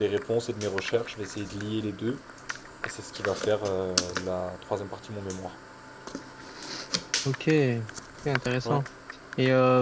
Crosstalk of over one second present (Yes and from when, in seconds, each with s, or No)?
No